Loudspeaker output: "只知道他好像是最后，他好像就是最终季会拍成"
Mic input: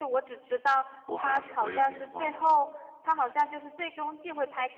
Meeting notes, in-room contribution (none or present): present